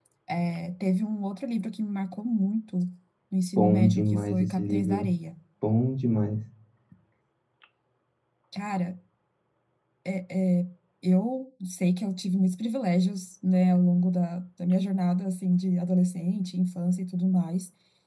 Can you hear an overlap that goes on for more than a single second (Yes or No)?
Yes